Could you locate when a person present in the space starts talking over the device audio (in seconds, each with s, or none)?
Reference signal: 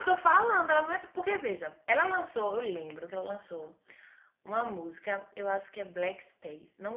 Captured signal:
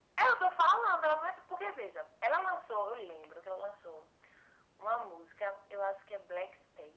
none